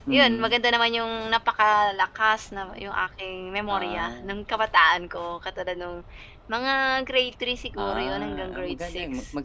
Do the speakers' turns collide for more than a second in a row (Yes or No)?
Yes